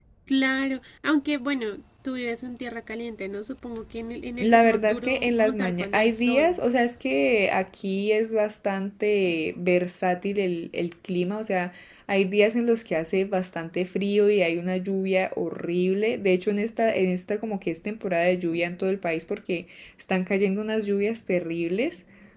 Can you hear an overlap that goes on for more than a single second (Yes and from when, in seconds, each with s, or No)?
Yes, from 4.4 s